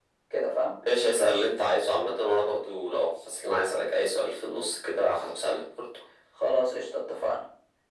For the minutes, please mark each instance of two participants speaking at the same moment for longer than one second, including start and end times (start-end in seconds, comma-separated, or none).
none